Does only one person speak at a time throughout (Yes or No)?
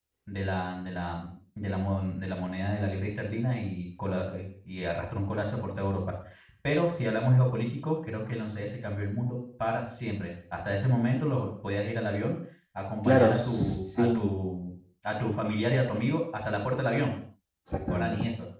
No